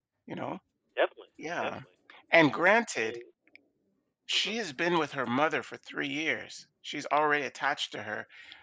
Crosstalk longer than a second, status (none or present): none